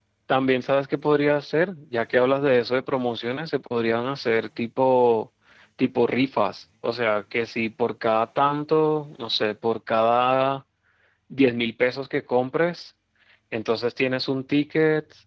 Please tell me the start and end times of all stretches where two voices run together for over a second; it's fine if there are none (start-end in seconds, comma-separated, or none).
none